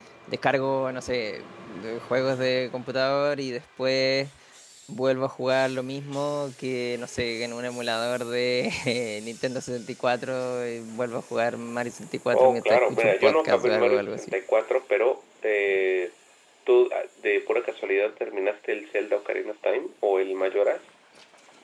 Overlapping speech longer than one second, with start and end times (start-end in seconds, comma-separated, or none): 12.4-14.3